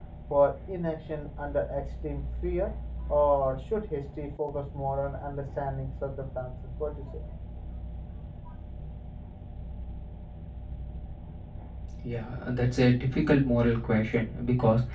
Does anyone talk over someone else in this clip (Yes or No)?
No